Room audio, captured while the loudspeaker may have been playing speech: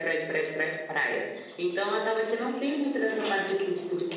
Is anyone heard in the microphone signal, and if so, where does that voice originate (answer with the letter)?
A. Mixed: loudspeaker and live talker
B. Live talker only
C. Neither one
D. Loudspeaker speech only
D